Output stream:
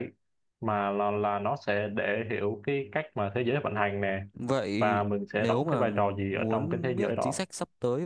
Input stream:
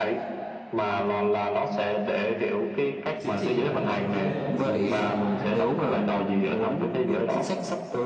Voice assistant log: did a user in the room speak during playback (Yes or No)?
Yes